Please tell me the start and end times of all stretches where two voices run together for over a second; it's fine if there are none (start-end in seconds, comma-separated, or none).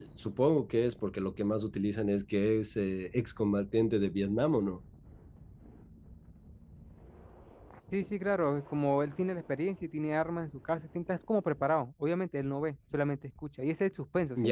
none